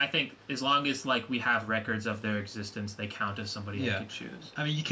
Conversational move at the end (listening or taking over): taking over